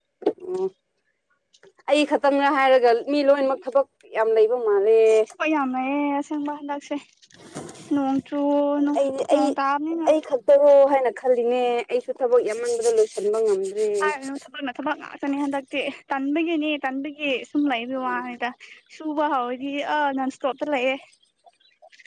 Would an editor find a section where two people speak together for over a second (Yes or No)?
No